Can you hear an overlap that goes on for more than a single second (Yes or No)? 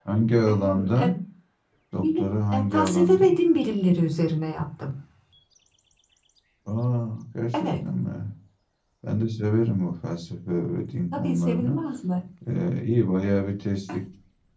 Yes